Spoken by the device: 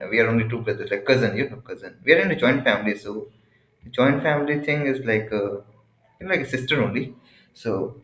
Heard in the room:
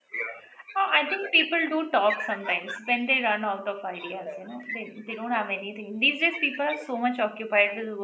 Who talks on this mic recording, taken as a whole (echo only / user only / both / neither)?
both